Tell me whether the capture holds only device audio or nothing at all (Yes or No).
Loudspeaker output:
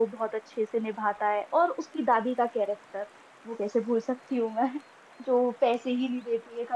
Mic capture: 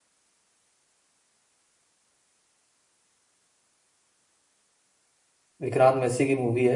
No